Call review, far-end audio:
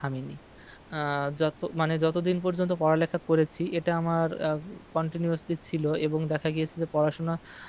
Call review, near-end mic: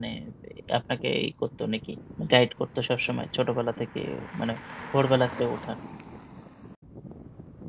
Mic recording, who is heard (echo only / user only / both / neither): user only